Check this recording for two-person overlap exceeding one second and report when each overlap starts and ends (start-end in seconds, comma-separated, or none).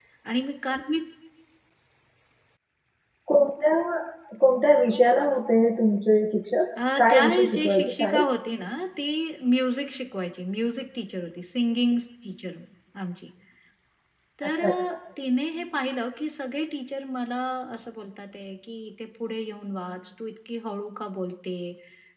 7.0-8.2